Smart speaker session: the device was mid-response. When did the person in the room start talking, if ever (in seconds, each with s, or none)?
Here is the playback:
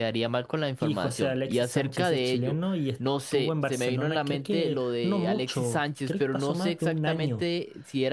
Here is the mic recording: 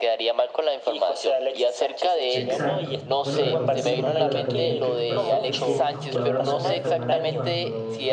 2.3 s